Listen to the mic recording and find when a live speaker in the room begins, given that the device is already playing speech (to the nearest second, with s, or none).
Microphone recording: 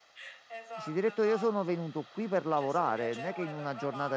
1 s